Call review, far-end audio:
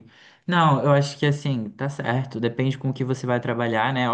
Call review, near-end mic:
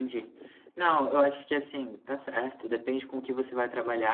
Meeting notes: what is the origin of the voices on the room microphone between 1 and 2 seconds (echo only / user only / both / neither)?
echo only